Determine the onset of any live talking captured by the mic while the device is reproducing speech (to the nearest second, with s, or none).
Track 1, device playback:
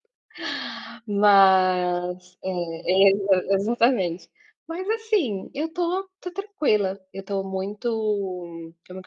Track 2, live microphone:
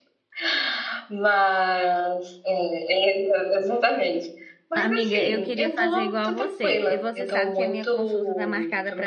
5 s